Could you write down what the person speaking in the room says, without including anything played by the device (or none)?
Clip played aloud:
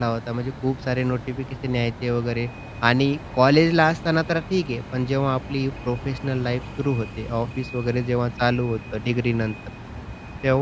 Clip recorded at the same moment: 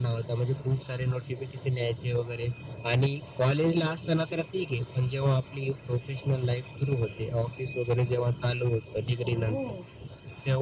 ओह!